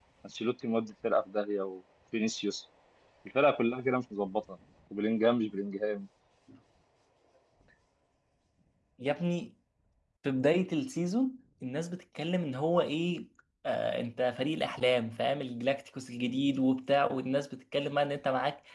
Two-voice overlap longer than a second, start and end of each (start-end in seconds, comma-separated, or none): none